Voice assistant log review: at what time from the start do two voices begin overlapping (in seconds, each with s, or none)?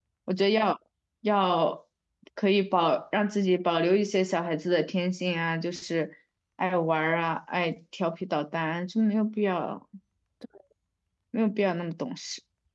none